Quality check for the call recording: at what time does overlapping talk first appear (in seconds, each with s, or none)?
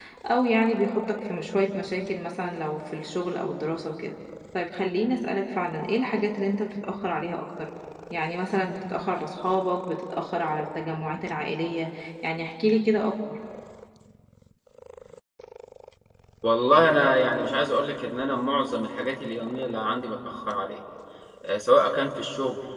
none